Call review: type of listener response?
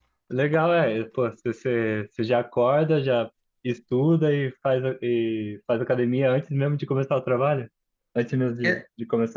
taking over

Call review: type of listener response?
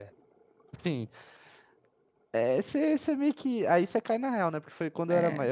listening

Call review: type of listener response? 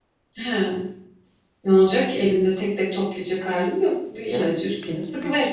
taking over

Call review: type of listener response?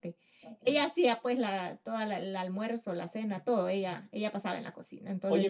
taking over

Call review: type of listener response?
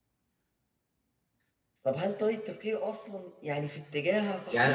taking over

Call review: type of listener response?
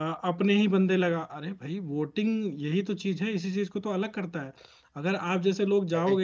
listening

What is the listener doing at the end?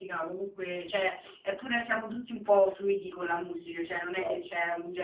listening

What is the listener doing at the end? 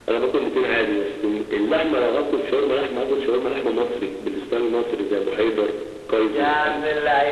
taking over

